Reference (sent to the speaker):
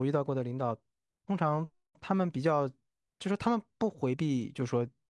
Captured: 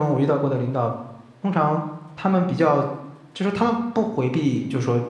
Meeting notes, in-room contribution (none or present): none